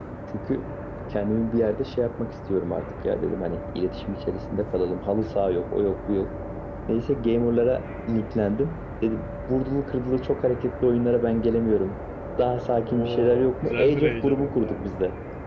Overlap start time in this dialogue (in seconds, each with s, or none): 12.8 s